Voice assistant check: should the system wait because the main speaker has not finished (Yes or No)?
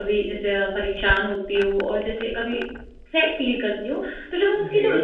Yes